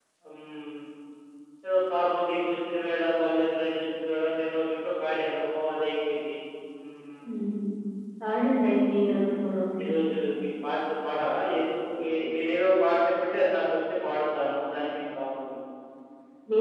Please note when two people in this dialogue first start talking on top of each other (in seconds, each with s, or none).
none